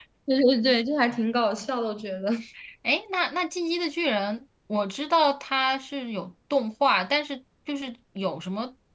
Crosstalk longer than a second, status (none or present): none